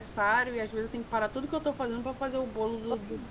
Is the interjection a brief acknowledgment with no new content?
No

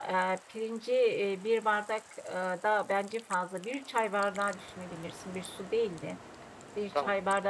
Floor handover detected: No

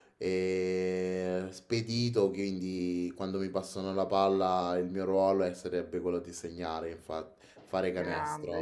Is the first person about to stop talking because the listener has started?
Yes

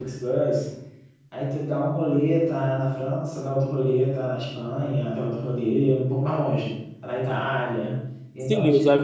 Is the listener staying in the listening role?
No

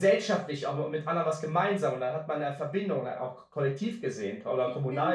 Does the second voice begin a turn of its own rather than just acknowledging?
Yes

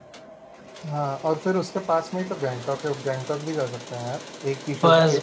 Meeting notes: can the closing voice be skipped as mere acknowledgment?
No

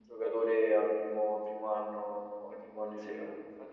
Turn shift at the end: No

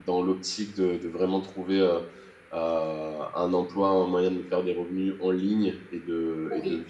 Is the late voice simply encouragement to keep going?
Yes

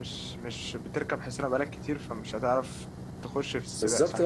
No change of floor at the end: No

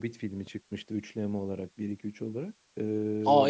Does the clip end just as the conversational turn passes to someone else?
Yes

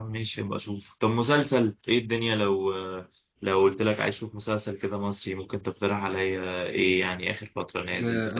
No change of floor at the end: No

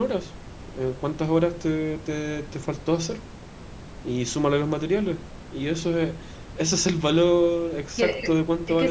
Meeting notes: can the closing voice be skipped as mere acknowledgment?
No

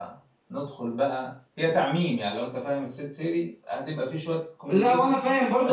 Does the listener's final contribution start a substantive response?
Yes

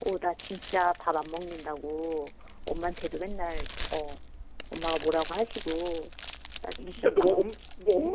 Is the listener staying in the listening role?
No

